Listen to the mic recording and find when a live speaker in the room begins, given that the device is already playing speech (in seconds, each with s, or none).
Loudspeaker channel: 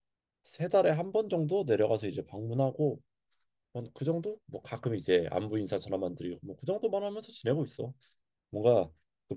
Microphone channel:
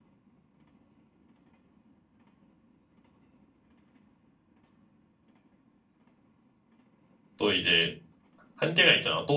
7.4 s